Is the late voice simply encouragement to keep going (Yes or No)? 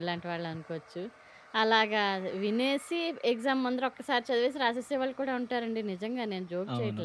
No